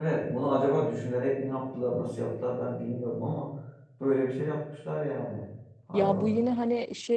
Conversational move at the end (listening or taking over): taking over